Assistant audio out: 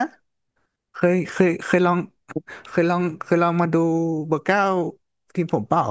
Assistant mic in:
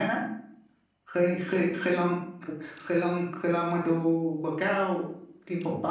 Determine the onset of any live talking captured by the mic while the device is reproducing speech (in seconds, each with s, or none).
none